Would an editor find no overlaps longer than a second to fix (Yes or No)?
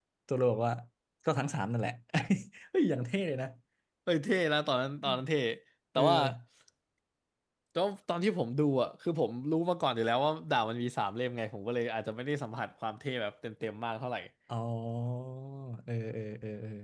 Yes